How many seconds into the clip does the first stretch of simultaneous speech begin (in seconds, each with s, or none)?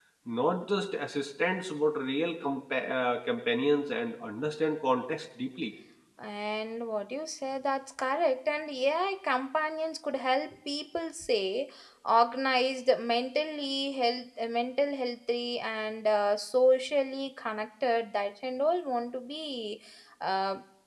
none